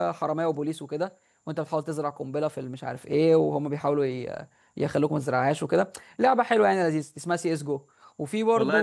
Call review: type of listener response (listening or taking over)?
taking over